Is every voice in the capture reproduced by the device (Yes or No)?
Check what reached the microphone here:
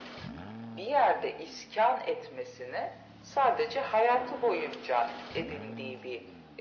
Yes